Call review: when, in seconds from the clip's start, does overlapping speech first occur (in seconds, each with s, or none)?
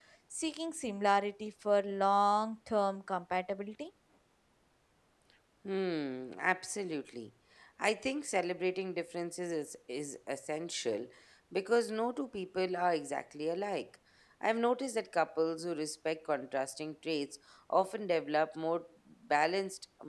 none